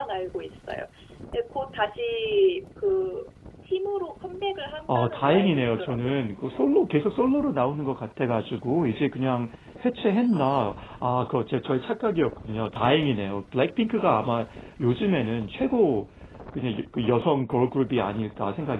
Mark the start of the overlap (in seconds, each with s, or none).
4.9 s